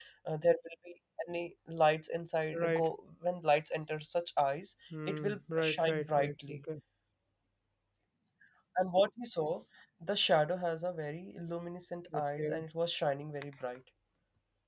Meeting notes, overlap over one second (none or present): present